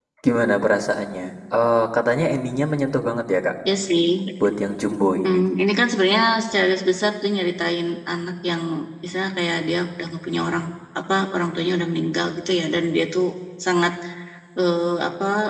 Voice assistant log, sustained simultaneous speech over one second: none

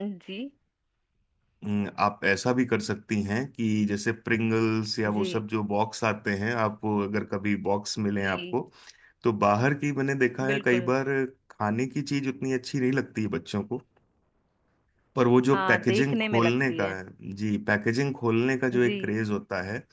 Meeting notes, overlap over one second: present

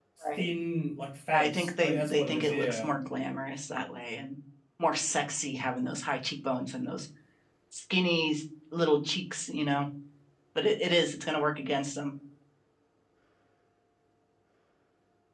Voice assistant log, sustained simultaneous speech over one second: present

